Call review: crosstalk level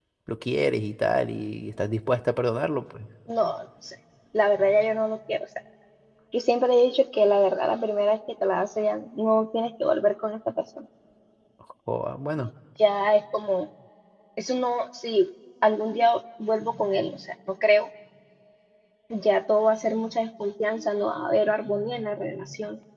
none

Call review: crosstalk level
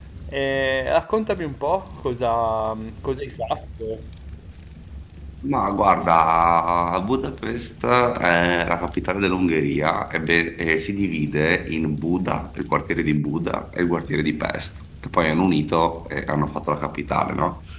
none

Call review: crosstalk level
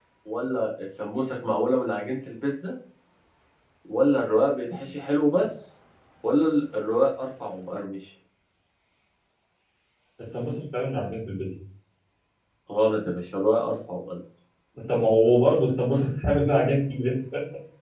none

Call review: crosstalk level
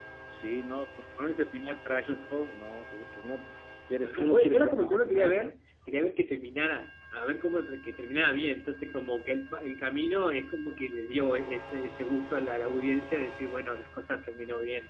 present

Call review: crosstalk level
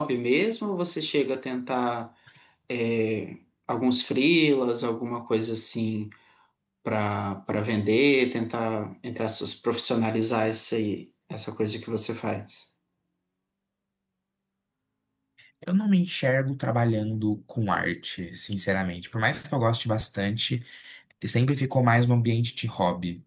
none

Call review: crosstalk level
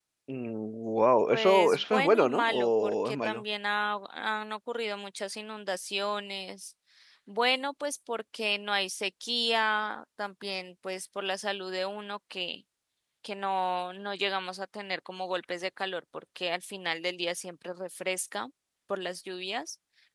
present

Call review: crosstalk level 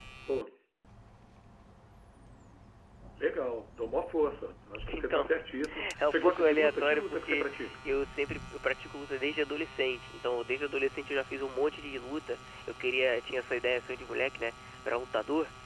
present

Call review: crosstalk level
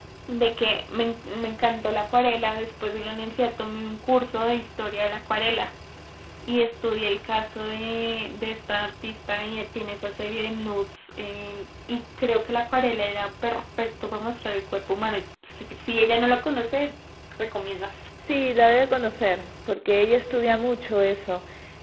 none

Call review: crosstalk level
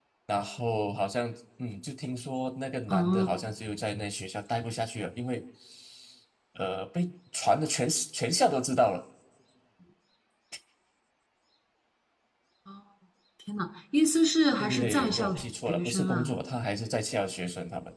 present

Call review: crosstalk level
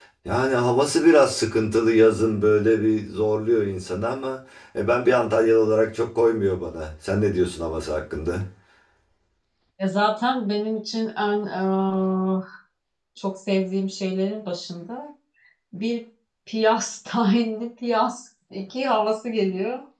none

